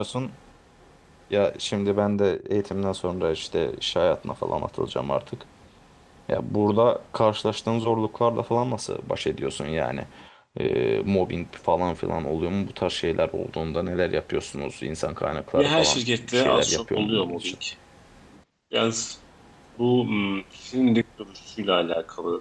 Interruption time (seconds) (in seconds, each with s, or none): 15.6 s